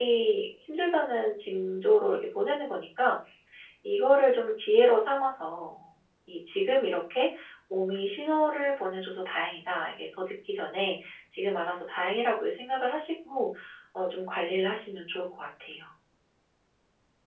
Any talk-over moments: No

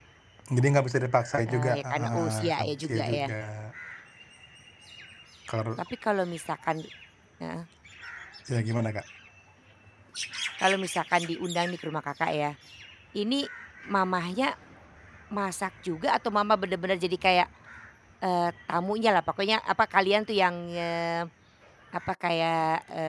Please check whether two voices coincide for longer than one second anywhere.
Yes, from 1.5 s

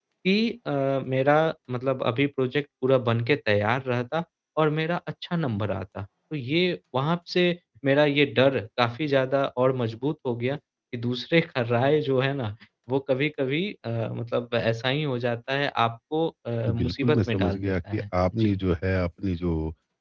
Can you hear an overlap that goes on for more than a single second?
Yes, from 16.7 s

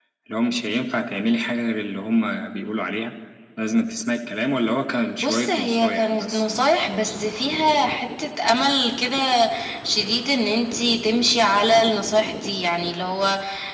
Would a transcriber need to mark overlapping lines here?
Yes, from 5.2 s

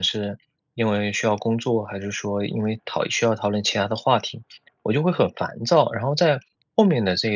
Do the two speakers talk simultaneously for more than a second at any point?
No

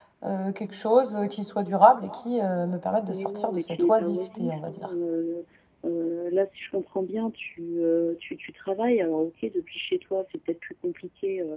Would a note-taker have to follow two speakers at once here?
Yes, from 3.1 s

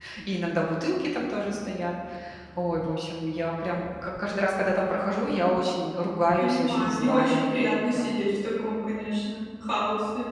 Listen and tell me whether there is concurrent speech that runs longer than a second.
Yes, from 6.4 s

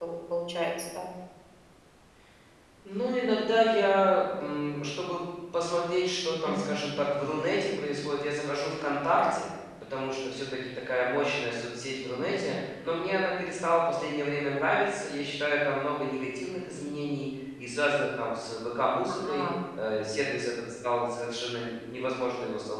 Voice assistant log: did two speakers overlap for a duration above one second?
No

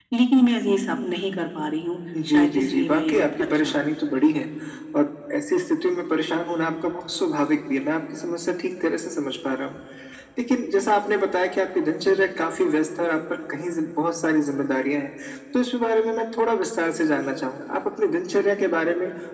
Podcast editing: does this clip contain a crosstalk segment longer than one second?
Yes, from 2.1 s

